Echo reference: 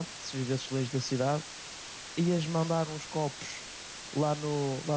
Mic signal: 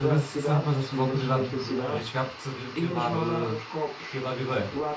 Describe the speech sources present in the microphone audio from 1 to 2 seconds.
both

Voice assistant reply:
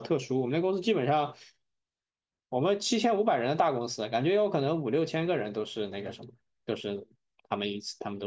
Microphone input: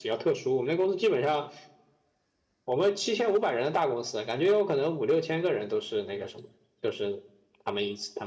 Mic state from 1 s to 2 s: echo only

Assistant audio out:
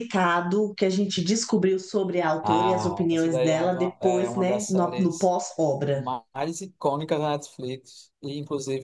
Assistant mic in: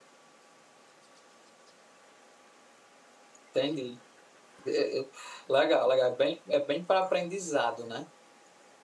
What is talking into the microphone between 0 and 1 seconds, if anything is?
neither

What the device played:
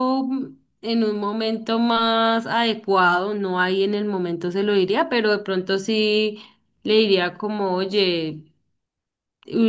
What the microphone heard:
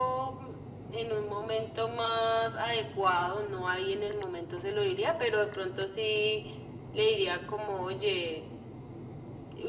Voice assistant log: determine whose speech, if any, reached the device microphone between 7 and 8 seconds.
echo only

